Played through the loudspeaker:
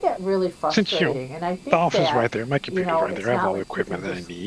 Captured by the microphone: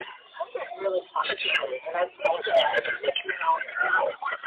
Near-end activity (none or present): none